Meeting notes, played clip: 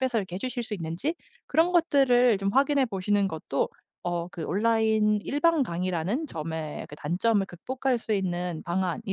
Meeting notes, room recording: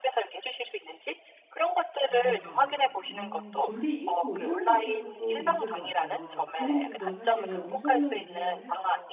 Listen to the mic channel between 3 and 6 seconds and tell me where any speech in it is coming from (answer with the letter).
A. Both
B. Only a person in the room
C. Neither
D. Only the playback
A